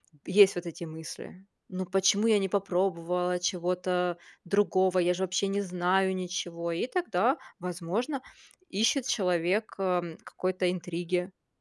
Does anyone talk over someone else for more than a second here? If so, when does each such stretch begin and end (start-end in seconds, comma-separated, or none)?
none